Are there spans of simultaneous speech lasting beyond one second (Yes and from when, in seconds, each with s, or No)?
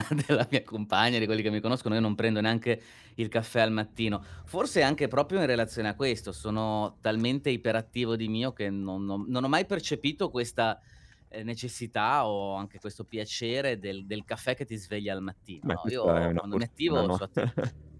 Yes, from 15.6 s